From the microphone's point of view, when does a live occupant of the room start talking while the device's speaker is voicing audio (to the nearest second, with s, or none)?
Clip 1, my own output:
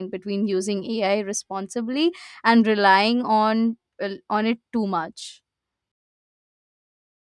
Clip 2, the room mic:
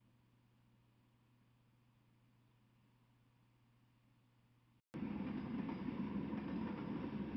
none